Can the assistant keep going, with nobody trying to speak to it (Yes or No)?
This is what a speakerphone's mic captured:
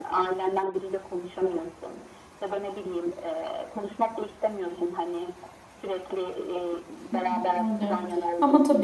No